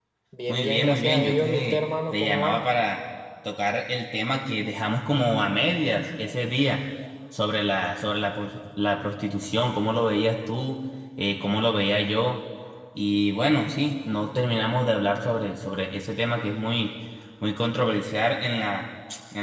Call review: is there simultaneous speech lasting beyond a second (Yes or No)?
Yes